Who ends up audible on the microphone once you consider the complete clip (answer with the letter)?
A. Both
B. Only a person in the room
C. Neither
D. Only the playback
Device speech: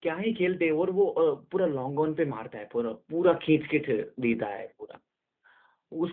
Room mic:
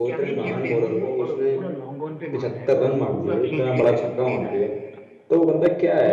A